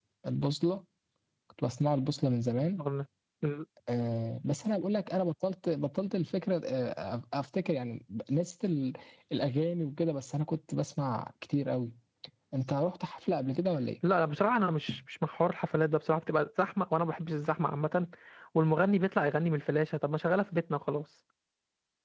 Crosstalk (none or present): none